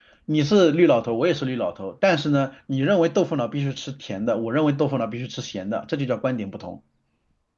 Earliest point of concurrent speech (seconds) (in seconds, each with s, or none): none